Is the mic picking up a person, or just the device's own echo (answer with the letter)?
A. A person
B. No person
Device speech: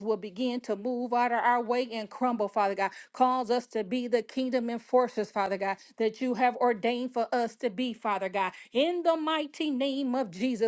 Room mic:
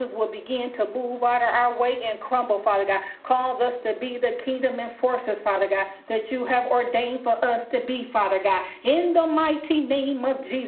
B